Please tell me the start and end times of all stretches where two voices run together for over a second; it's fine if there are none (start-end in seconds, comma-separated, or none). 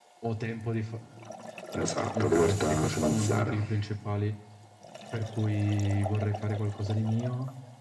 2.2-3.6